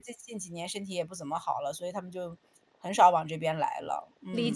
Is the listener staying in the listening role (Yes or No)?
No